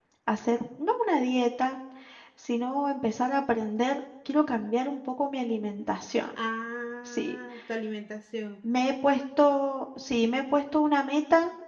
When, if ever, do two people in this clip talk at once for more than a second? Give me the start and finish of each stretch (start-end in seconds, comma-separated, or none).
none